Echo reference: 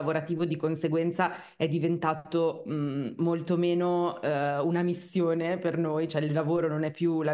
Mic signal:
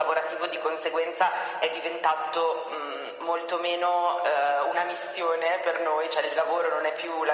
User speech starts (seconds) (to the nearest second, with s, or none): none